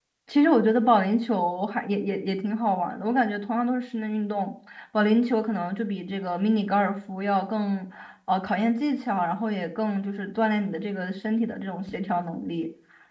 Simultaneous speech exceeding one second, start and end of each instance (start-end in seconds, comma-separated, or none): none